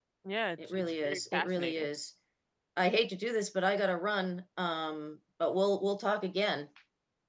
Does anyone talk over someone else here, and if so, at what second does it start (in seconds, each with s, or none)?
0.7 s